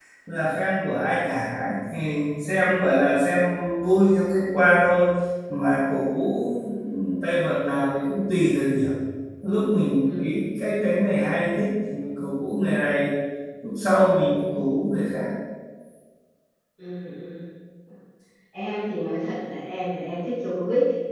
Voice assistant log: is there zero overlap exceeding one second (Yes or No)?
Yes